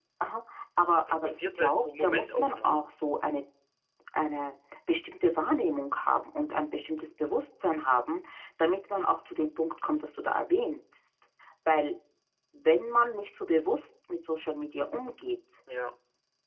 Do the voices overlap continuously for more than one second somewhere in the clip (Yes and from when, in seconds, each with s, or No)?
Yes, from 1.1 s